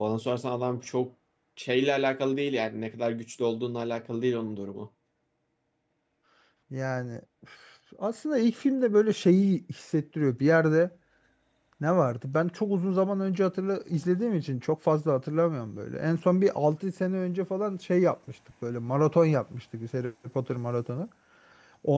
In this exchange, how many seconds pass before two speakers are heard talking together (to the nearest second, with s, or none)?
none